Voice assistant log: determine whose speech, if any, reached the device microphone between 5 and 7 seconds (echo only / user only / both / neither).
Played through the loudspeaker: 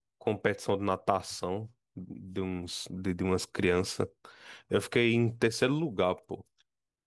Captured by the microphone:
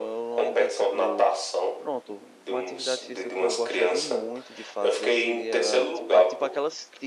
both